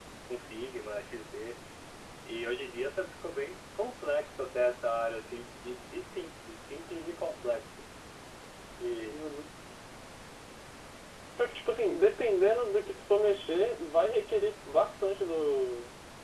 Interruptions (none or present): none